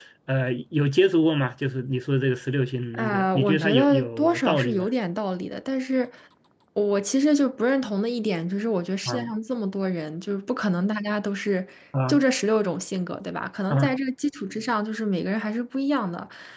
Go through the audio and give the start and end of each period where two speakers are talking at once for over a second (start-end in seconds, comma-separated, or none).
2.9-4.9